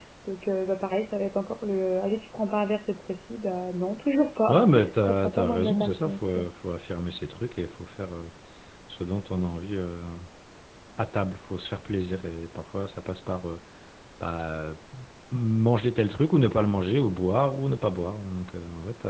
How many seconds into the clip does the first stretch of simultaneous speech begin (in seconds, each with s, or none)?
4.5 s